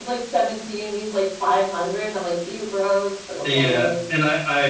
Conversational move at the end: taking over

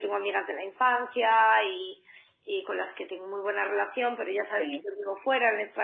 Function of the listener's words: listening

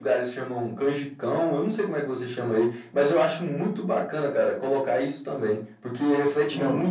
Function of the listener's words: listening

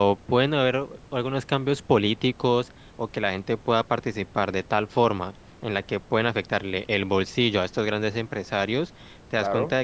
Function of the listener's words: listening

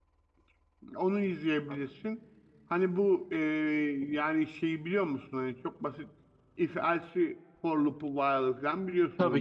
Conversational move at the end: taking over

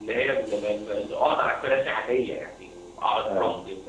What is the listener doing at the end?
listening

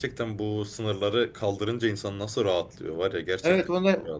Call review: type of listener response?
taking over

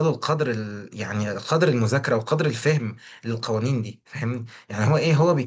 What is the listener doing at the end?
listening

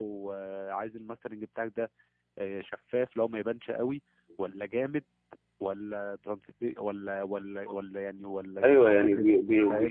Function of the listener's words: taking over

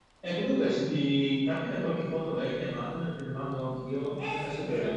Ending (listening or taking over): taking over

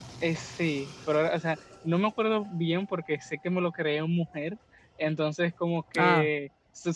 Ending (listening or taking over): listening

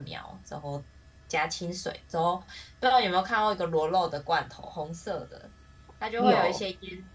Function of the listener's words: listening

